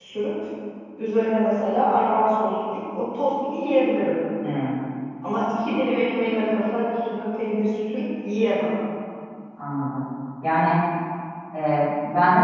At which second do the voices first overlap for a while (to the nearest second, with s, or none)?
none